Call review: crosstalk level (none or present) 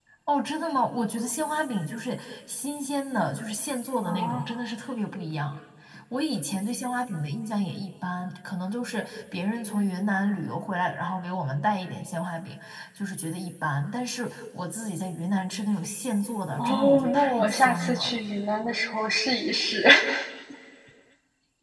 present